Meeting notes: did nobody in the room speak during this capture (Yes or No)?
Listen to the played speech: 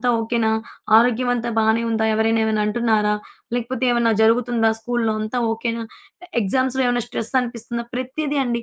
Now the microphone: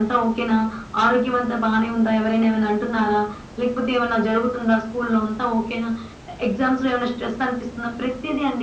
Yes